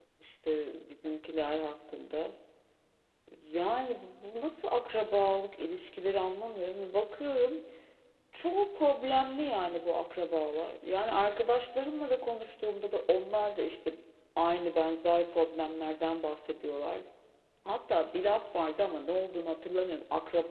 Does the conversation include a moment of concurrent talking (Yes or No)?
No